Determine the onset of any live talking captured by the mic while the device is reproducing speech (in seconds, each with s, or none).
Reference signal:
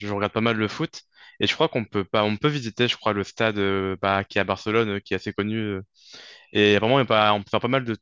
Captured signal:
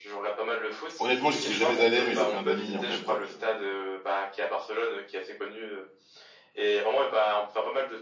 1.0 s